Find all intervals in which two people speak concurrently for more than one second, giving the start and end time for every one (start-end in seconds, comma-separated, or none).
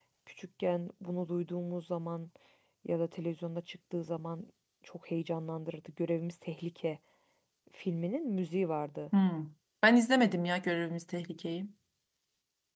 none